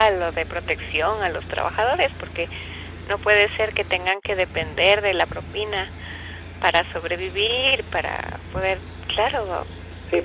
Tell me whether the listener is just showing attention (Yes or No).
No